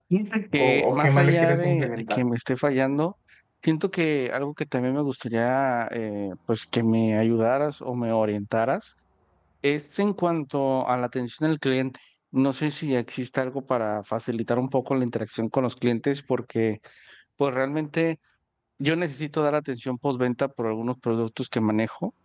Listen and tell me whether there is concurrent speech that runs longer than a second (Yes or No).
Yes